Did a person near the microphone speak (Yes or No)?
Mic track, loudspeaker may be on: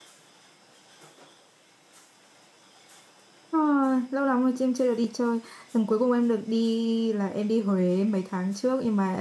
Yes